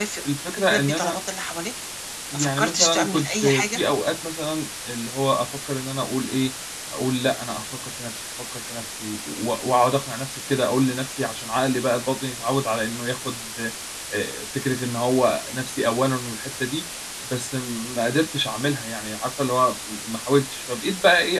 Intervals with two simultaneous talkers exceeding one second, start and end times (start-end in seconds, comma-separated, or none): 2.3-3.8